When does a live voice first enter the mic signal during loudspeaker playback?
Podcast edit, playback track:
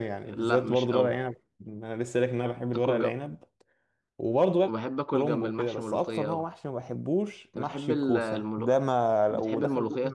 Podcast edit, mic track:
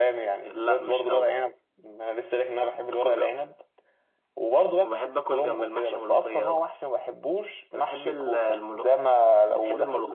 none

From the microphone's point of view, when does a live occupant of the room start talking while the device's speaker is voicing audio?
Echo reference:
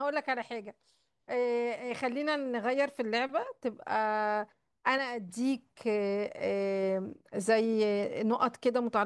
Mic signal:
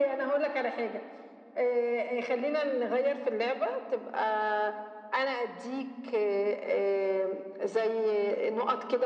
none

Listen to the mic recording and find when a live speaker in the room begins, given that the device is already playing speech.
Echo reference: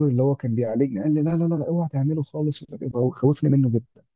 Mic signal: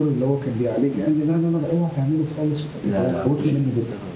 3 s

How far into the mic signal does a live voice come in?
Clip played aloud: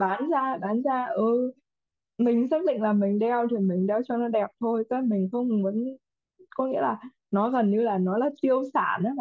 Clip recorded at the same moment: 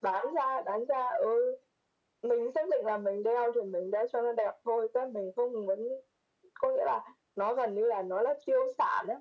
none

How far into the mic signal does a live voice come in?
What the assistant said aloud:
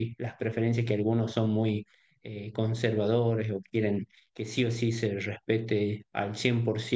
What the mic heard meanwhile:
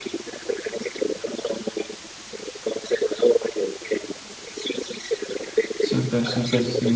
6 s

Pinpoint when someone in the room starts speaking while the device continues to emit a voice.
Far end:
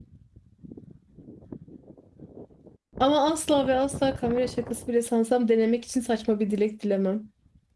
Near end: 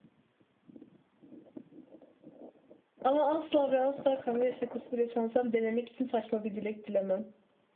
none

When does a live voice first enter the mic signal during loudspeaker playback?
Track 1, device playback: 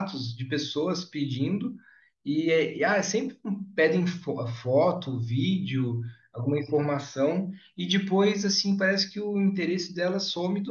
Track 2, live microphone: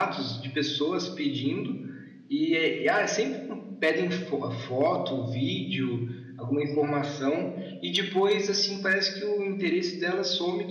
none

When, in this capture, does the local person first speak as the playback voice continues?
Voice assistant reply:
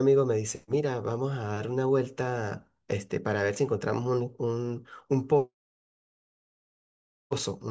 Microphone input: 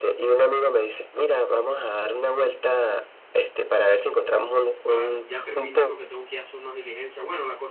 5 s

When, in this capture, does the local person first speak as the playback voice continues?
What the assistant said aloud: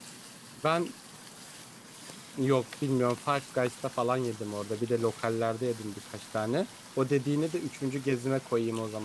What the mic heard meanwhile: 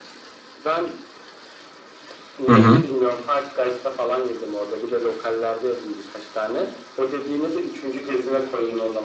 2 s

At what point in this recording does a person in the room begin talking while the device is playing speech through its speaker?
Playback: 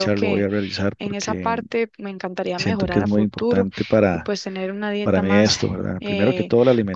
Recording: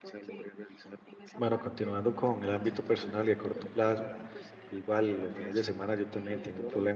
1 s

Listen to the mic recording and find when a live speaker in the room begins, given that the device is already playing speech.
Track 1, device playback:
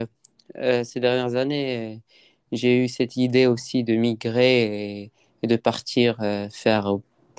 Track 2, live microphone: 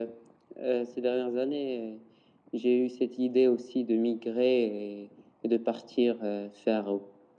none

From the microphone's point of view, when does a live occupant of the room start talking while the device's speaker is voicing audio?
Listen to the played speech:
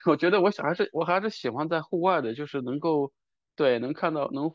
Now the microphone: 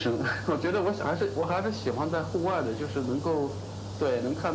none

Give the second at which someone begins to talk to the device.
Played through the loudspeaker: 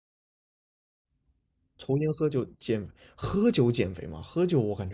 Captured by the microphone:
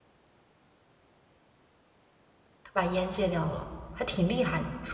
3 s

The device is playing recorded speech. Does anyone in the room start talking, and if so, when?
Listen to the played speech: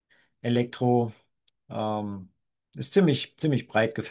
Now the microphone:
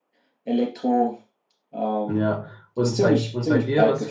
2 s

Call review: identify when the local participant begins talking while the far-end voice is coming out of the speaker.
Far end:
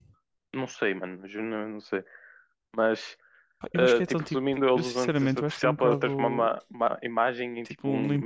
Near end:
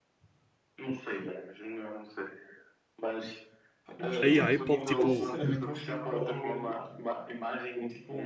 4 s

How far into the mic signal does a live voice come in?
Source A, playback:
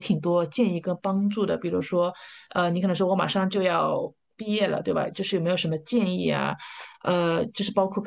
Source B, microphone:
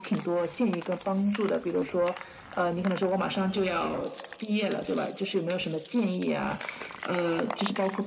none

